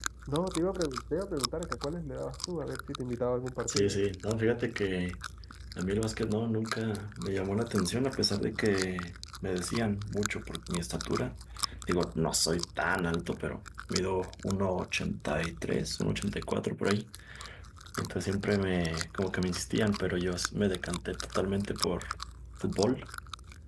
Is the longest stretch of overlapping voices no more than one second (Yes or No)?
Yes